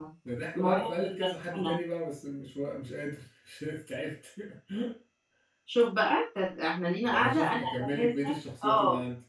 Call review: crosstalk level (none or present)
present